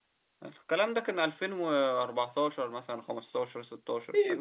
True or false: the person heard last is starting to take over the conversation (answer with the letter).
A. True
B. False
A